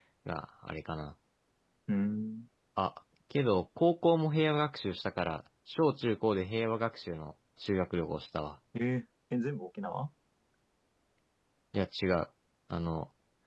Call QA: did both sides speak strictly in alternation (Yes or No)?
Yes